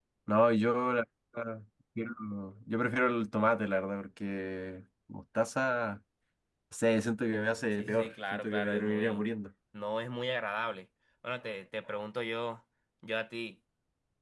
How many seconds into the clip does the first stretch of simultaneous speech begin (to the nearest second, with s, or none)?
8 s